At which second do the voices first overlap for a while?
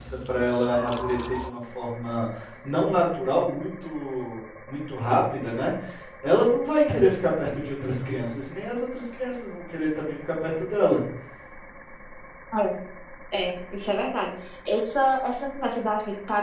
none

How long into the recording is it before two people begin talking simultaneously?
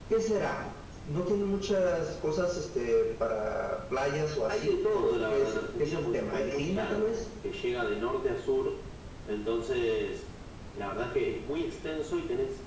4.5 s

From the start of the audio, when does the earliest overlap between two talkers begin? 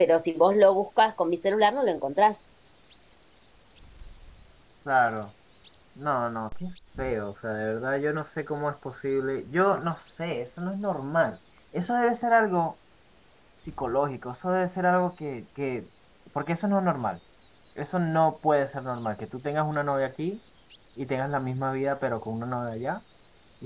none

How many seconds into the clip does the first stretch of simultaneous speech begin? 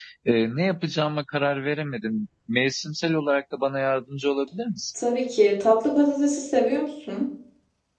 none

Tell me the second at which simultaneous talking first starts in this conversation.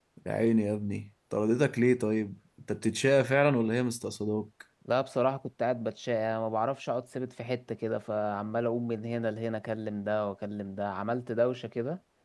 none

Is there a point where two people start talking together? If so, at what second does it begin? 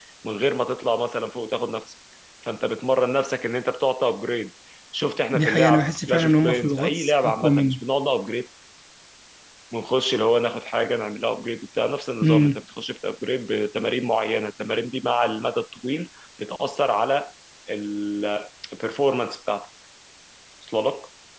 5.3 s

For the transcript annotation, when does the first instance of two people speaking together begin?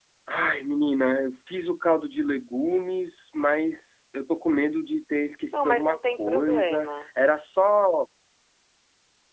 5.5 s

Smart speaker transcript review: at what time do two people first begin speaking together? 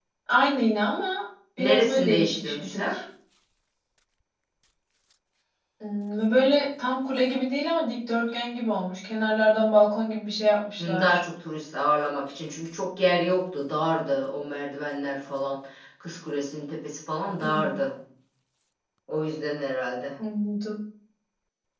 1.6 s

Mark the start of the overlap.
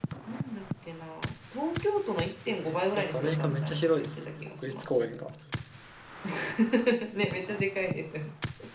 2.5 s

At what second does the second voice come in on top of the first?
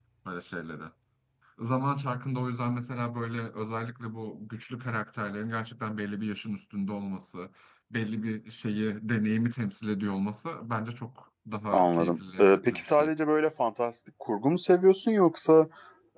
11.7 s

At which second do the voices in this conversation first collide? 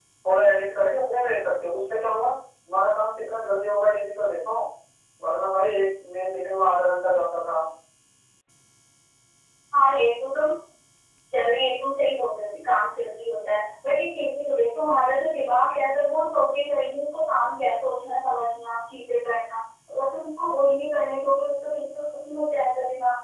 none

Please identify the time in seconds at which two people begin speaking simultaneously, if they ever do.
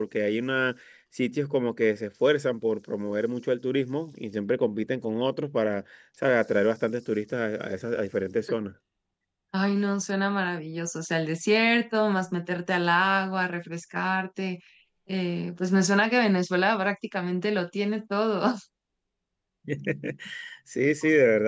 none

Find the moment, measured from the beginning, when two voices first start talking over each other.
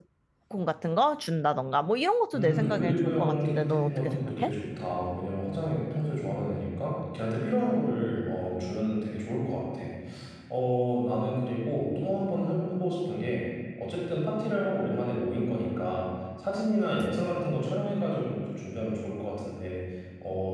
2.3 s

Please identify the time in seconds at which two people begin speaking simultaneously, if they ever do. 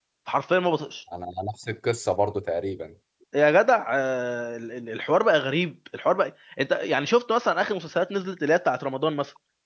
none

